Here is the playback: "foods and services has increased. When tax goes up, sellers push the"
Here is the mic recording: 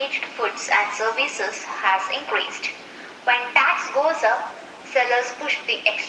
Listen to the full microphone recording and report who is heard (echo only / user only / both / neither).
echo only